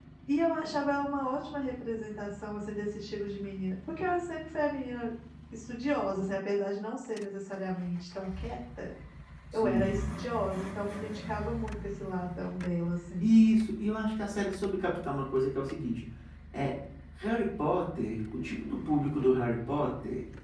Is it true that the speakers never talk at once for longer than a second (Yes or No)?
Yes